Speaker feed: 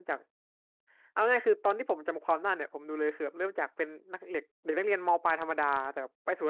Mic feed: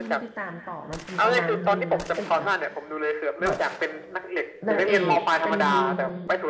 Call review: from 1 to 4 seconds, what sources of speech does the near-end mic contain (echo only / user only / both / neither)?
both